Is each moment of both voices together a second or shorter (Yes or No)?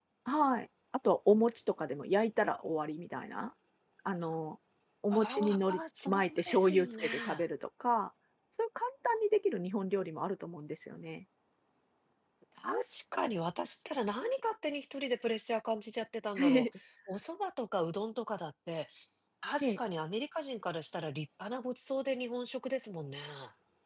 No